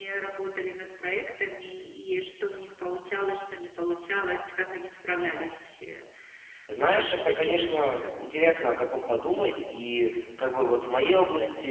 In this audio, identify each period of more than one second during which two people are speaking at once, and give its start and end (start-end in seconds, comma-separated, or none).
7.0-8.2